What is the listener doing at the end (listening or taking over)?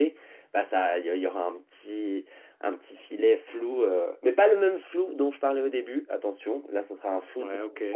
listening